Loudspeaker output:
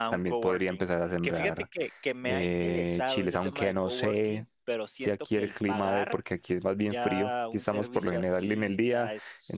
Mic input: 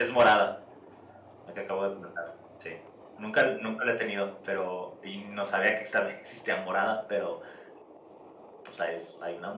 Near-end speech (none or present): present